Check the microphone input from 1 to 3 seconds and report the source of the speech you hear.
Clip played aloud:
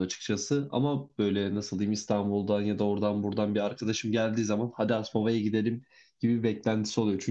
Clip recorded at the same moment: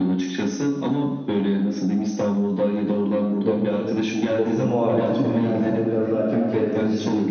echo only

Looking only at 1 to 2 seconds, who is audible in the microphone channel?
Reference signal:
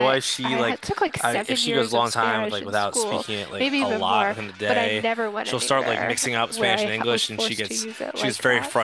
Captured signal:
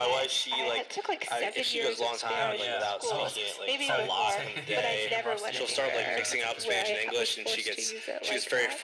echo only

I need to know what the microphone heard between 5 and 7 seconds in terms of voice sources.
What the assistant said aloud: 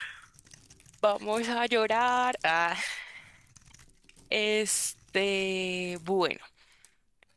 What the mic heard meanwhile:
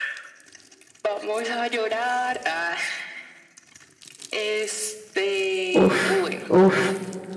both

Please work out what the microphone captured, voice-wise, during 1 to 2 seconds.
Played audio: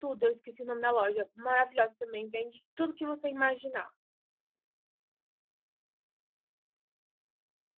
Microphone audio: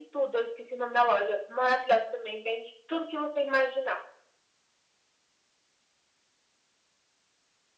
echo only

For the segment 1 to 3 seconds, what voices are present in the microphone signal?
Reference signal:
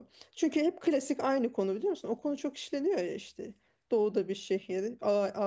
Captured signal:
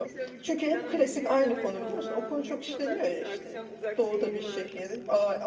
both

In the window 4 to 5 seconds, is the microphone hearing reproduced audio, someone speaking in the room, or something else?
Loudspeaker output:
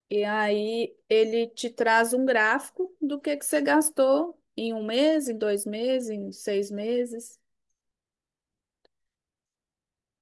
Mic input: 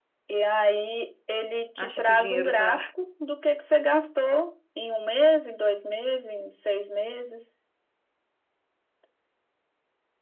echo only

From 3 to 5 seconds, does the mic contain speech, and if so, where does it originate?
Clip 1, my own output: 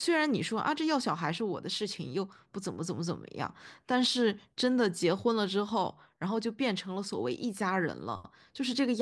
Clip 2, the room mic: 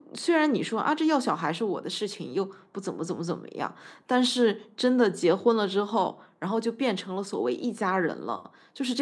echo only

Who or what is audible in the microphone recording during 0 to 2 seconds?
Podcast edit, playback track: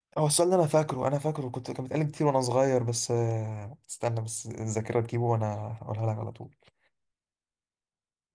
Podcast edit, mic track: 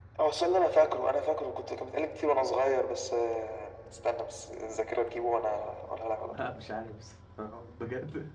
echo only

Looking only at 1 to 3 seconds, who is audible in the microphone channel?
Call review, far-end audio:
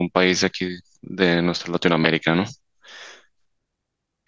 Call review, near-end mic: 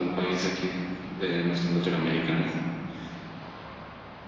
echo only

